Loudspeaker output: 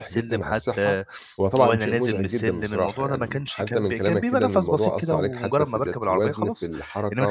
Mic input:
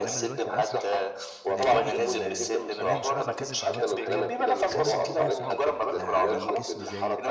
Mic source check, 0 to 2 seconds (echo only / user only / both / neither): both